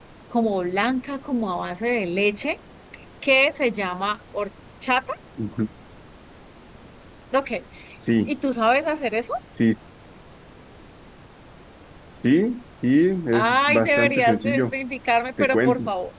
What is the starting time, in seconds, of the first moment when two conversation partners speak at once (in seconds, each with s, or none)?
13.3 s